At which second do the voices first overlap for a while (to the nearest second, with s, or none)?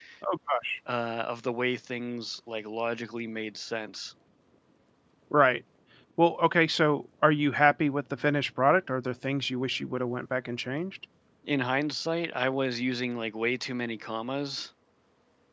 none